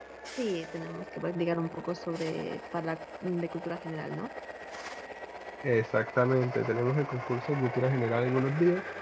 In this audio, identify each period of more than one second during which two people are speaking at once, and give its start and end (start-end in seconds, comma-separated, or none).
none